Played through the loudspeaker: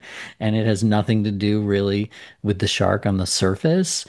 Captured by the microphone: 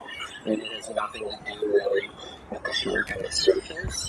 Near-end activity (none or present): none